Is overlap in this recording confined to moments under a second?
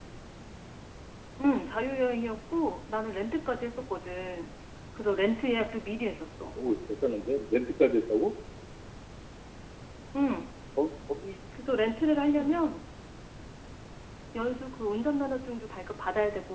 Yes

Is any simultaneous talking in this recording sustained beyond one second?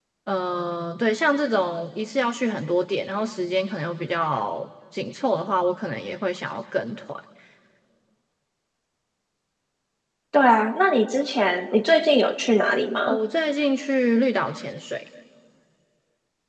No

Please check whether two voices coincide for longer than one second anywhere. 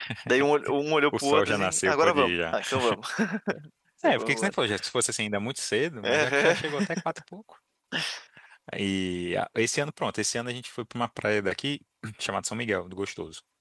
Yes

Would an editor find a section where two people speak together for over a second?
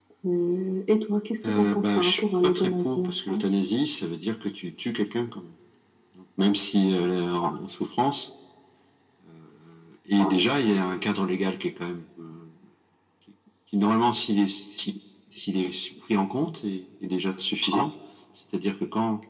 Yes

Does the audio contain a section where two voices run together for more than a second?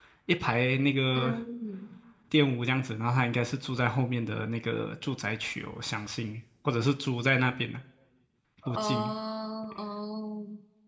No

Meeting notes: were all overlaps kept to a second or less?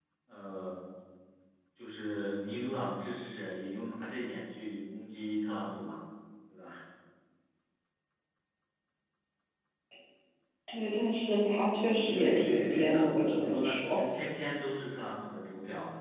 No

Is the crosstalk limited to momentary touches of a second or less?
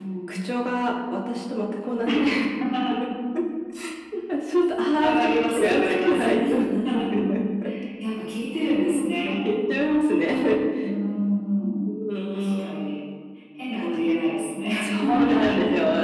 No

